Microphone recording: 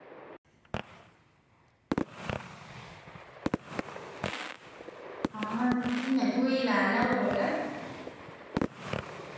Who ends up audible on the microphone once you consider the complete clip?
user only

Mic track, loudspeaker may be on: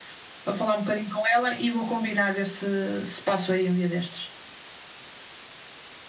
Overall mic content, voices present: echo only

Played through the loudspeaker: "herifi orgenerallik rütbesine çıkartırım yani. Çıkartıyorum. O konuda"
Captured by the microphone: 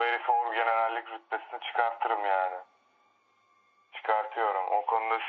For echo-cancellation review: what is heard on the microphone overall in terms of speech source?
echo only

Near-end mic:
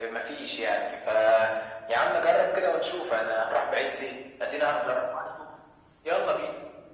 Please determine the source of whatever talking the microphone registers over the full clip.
echo only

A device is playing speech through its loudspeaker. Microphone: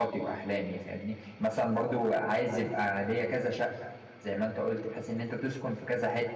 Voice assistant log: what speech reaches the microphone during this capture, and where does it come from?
user only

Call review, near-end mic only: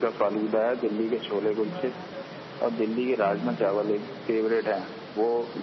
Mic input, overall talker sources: both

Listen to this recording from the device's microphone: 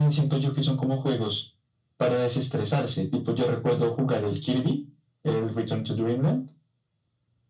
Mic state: echo only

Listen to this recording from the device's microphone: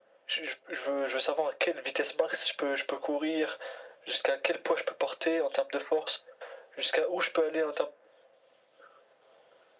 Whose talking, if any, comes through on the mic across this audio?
echo only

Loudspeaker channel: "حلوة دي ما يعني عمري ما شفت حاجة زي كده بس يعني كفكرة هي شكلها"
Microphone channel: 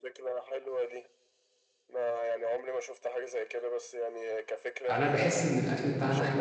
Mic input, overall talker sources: both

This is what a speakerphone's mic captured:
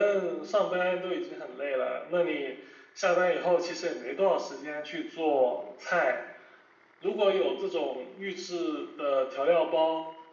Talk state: echo only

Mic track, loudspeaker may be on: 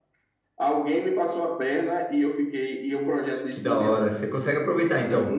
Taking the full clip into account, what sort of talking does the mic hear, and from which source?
both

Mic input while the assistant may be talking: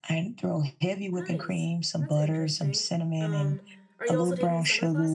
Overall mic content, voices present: both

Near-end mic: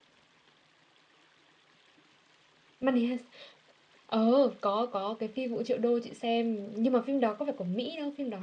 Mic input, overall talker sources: user only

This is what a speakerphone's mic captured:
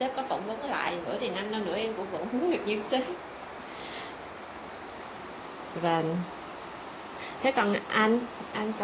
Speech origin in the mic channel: user only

